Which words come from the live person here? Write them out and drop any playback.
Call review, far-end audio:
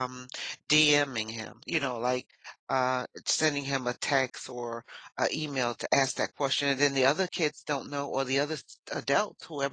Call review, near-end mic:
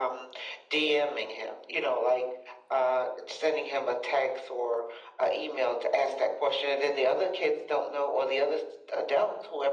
none

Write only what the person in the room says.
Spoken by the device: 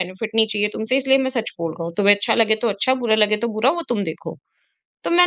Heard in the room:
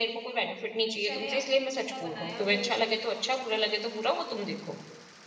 चाहे आपने कुछ ऐसा बनाया हो

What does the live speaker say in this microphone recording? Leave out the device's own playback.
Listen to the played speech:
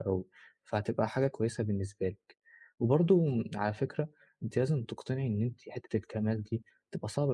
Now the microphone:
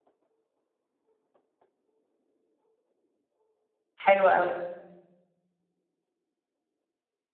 حلو أوي.

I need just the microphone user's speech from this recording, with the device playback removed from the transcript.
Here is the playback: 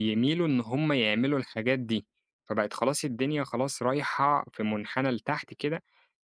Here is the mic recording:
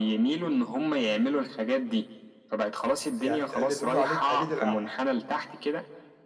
يعني الت اللي بيقولوا عليه التقليد الأعمى.

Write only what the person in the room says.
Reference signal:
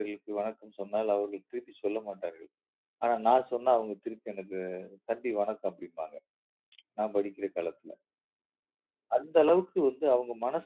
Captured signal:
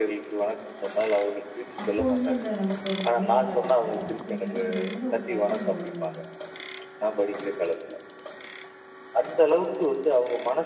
அப்போ வந்து அந்த நமக்கு ஒரு மரியாதை கிடைக்குது அப்படிங்கிறத நீங்க எந்த ஒரு தருணம் உணர்ந்தீங்க?

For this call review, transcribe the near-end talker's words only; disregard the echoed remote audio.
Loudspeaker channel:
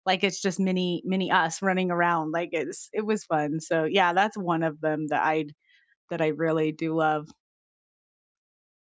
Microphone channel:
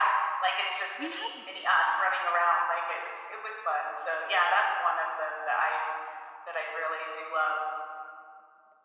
We have

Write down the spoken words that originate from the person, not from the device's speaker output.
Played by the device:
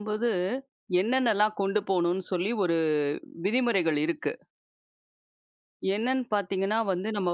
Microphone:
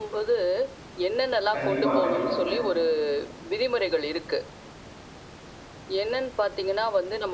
கண்டிப்பா, கண்டிப்பாங்க.

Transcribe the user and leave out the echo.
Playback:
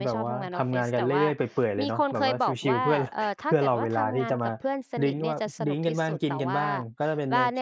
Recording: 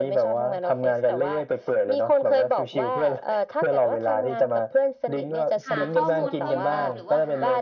หาข้อมูลเพิ่มเติมหรือว่าหา

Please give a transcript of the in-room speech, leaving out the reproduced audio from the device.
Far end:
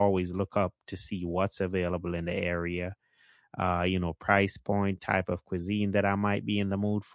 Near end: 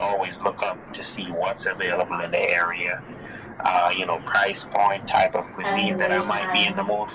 having to waste time,

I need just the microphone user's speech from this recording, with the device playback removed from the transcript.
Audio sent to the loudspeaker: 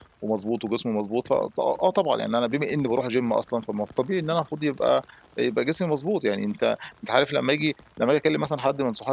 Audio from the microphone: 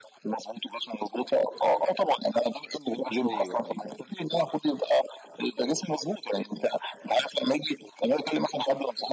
أيوه، أيوه،

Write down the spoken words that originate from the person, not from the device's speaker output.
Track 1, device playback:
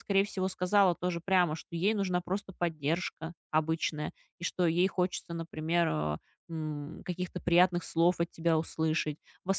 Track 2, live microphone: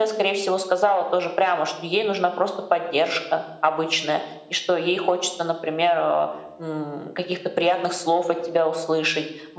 none

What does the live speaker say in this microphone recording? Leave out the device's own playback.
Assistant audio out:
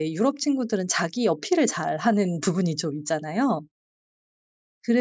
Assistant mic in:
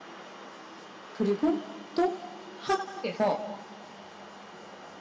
그리고 또 한국에서

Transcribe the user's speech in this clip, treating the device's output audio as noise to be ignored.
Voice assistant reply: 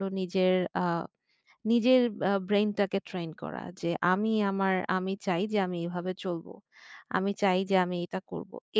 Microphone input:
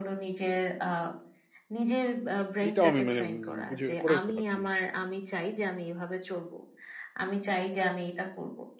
এইটাও আমি মানে উম, বুঝে করে উঠতে পারছি না আসলে।

